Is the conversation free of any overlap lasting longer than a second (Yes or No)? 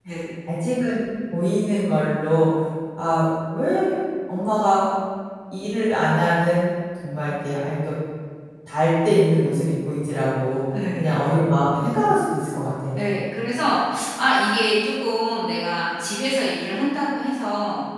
Yes